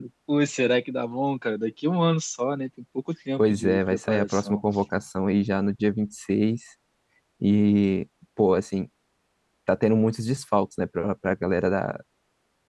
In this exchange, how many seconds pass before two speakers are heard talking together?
3.4 s

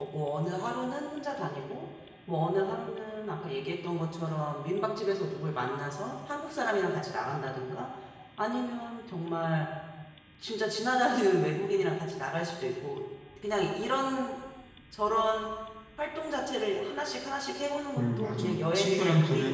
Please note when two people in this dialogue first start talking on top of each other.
18.0 s

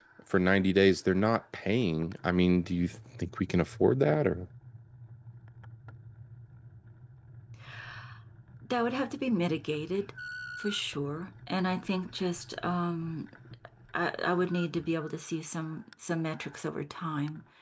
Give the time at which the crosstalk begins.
none

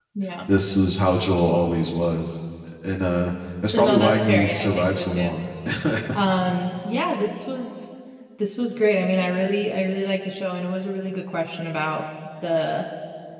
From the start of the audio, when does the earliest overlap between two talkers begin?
3.7 s

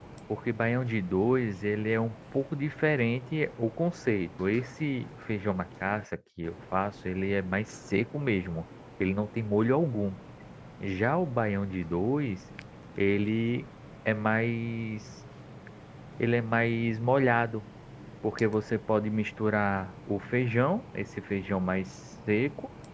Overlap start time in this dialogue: none

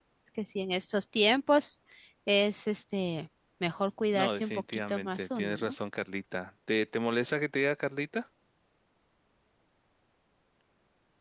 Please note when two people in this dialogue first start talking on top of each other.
4.1 s

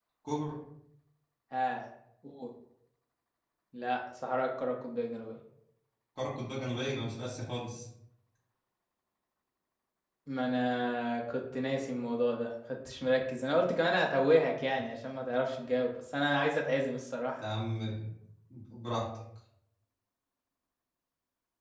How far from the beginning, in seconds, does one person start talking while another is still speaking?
none

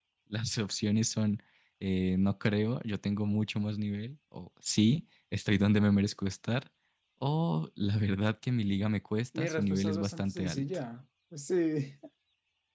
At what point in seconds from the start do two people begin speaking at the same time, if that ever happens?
9.3 s

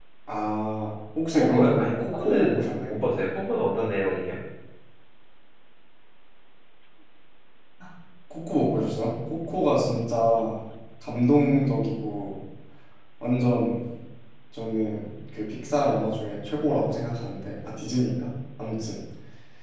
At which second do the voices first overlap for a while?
1.3 s

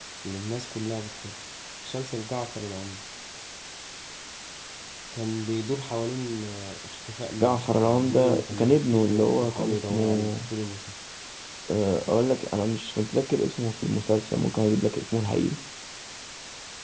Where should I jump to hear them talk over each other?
7.4 s

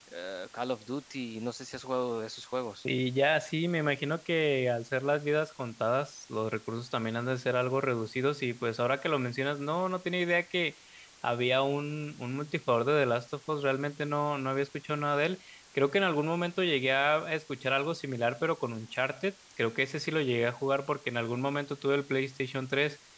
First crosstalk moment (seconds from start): none

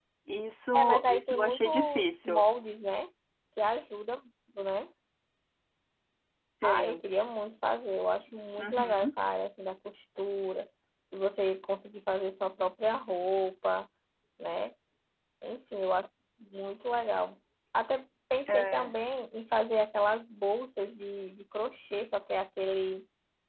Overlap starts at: 0.7 s

